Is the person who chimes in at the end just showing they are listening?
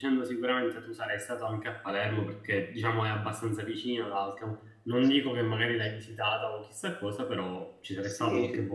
No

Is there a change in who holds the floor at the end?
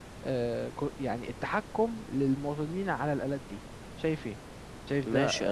Yes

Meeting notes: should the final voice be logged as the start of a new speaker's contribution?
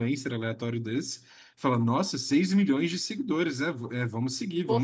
No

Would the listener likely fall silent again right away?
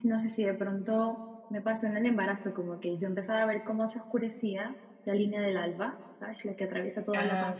Yes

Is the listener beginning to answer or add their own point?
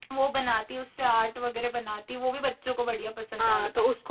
Yes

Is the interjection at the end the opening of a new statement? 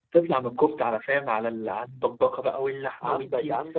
Yes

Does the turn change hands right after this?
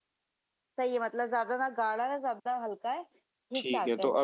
Yes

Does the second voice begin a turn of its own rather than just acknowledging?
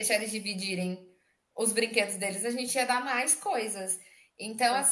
No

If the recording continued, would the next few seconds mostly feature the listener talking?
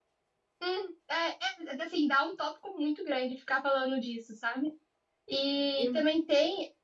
No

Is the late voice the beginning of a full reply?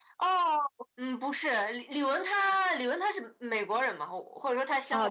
Yes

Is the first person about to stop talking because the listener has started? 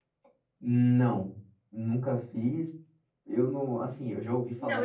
Yes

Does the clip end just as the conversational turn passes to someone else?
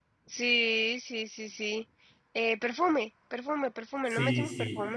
Yes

